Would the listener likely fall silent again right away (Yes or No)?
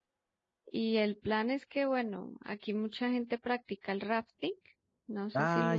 No